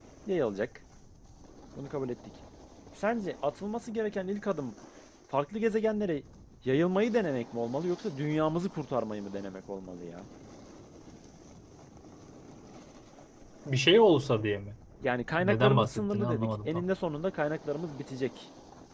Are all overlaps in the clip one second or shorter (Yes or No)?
No